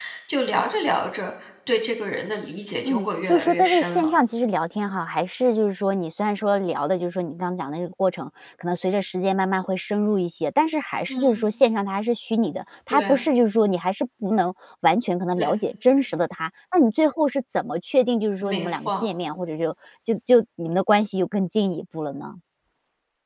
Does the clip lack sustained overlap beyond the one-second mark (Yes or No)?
No